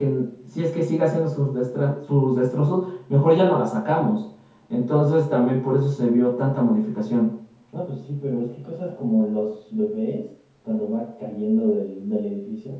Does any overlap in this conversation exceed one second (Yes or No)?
No